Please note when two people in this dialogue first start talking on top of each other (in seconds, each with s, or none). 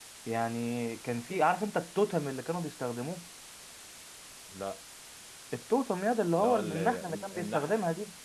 6.3 s